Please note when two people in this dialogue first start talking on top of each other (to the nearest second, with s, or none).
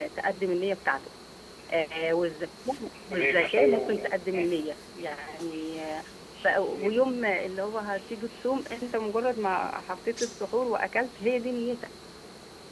3 s